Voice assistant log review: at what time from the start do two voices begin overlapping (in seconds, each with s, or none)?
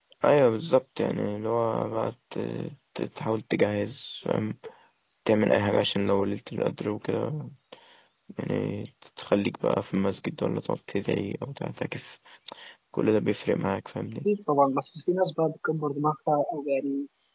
none